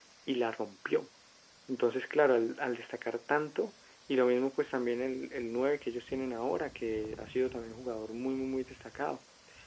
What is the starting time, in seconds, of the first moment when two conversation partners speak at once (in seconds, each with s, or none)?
none